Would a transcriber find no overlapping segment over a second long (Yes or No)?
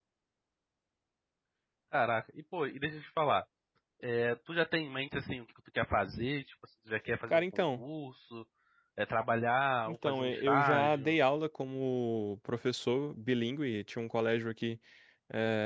No